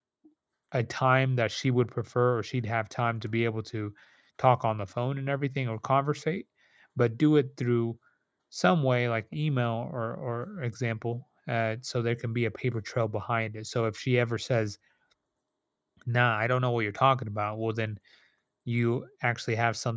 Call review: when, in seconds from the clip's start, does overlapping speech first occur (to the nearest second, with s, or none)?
none